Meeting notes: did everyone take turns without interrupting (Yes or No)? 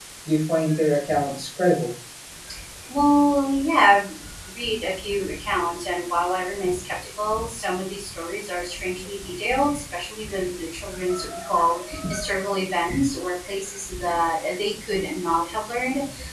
Yes